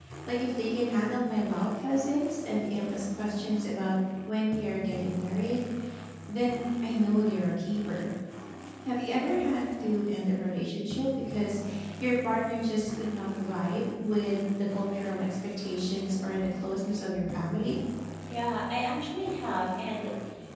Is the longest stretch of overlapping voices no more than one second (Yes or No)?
Yes